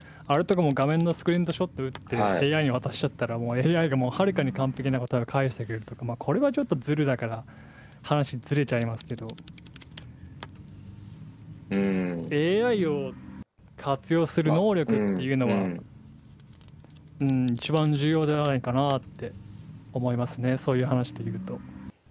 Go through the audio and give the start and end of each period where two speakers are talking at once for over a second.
14.4-15.7

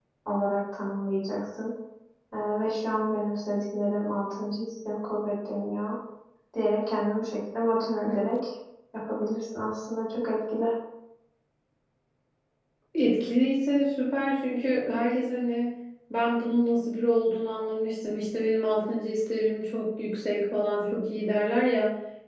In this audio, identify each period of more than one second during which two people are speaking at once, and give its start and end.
none

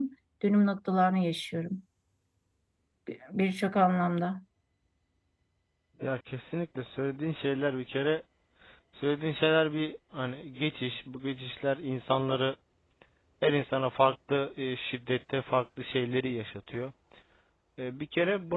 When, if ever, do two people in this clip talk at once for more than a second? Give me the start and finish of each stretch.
none

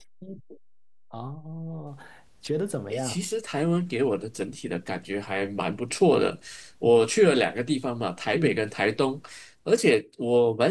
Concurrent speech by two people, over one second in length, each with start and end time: none

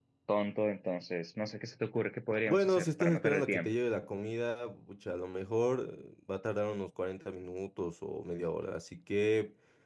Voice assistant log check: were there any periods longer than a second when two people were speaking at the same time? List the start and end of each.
2.5-3.7

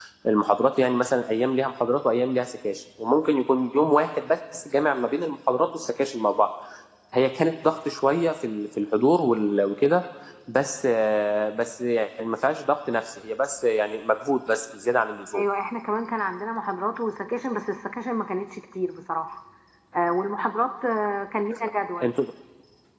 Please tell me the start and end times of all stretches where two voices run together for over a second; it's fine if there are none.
none

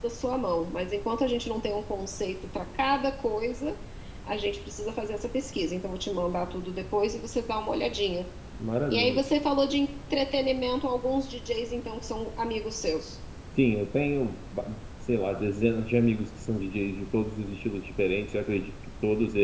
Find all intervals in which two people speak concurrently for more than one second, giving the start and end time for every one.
none

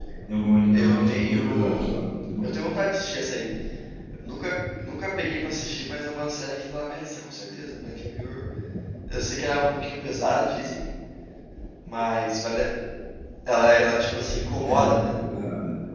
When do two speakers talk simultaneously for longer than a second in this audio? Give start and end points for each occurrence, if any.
0.7-1.9

